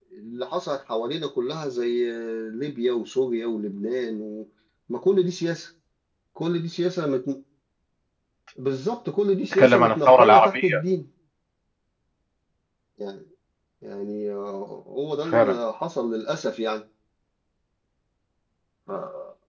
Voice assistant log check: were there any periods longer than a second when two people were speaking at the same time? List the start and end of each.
9.5-10.8

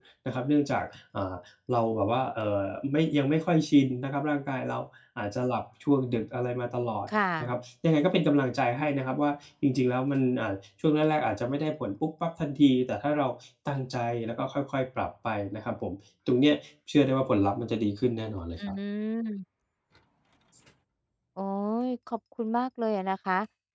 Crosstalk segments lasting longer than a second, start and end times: none

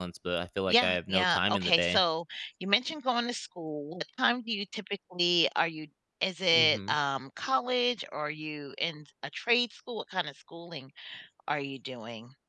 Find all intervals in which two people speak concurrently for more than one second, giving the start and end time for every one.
0.7-2.0

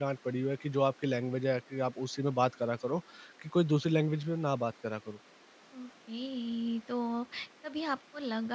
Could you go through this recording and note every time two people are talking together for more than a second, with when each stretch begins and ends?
none

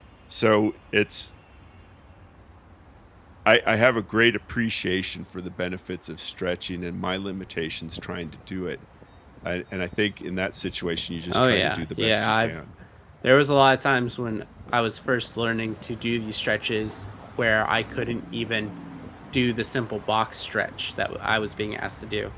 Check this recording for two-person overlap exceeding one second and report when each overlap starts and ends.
11.3-12.6

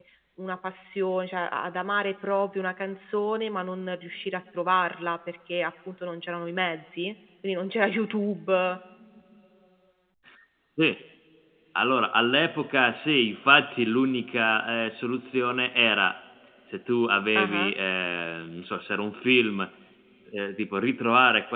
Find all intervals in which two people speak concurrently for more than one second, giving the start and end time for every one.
none

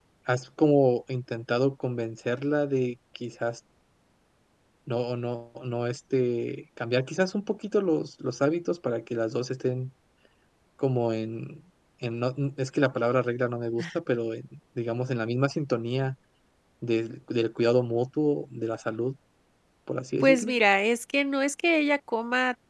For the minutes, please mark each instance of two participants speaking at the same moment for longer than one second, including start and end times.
none

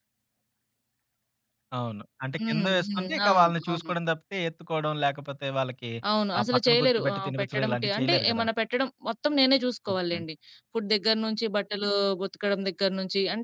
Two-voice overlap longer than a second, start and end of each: 2.4-3.9, 6.4-8.4

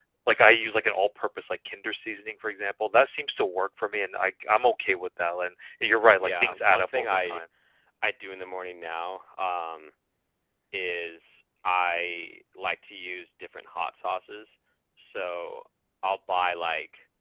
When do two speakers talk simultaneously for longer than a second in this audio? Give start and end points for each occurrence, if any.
6.2-7.4

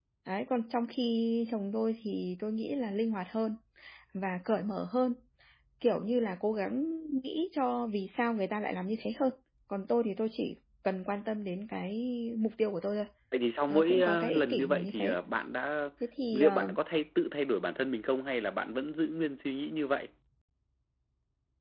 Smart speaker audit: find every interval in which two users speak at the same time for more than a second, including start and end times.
13.7-15.2

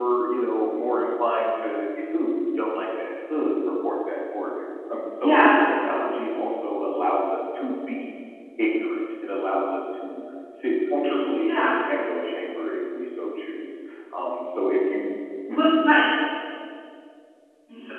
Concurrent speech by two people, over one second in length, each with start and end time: none

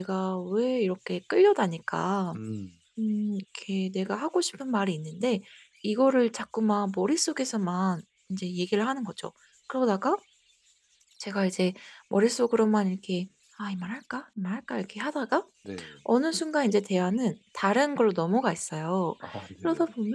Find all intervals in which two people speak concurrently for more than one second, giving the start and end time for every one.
none

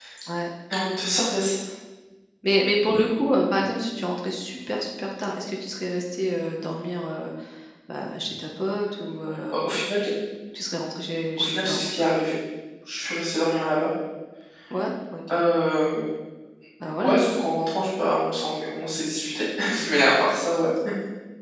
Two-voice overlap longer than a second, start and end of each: none

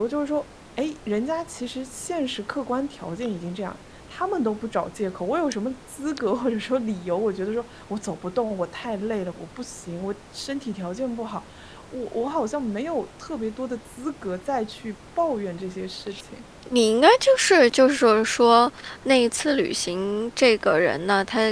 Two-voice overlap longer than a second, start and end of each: none

